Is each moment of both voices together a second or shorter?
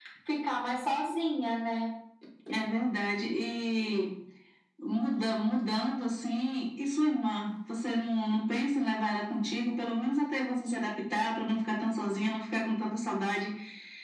Yes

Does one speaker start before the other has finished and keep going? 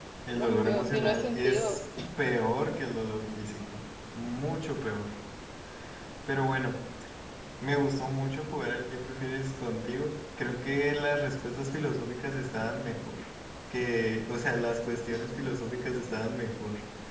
Yes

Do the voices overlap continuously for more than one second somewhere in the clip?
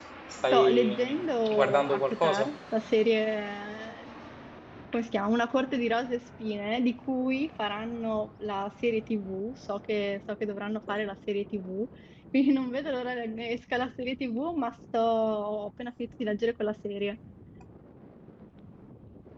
Yes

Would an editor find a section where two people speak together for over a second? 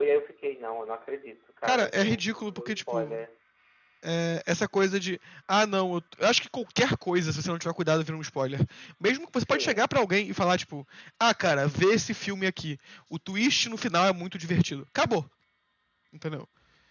Yes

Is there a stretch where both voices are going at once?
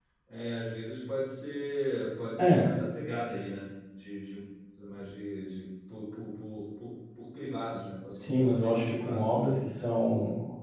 Yes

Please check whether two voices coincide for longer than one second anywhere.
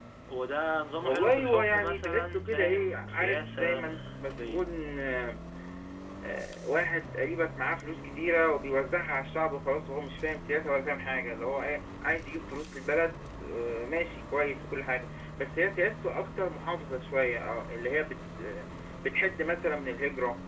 Yes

